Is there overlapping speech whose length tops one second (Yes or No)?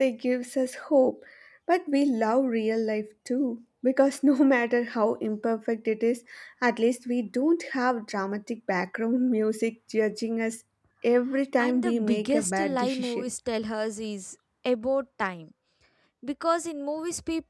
Yes